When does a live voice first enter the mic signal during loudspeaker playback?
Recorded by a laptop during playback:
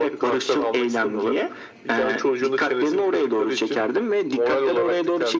none

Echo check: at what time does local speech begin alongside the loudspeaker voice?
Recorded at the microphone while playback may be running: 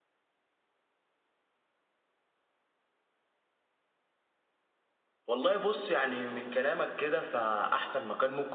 5 s

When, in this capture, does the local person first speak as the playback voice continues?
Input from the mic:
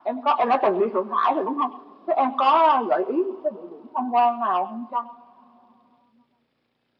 none

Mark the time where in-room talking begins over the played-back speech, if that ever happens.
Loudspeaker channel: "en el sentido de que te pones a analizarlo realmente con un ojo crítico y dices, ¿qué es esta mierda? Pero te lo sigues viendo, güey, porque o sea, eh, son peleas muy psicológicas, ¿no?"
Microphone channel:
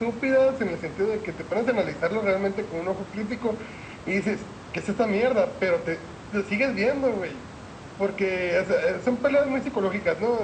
none

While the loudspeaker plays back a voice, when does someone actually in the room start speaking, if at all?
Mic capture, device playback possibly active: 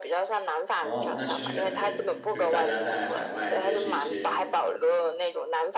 1 s

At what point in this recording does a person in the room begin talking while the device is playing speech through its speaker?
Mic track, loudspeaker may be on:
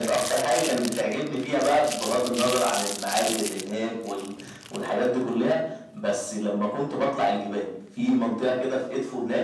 none

